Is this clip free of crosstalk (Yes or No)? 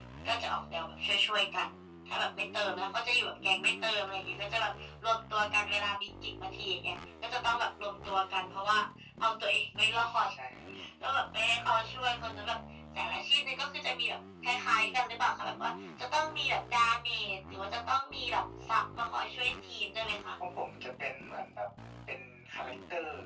Yes